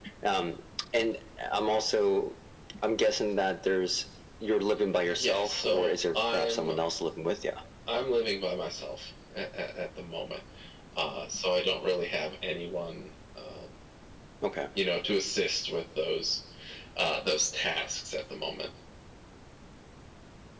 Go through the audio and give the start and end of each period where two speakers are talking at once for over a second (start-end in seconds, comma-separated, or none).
5.0-6.7